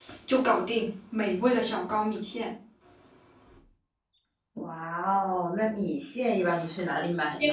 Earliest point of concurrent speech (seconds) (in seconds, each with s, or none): none